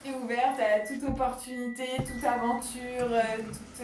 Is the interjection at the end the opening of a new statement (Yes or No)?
No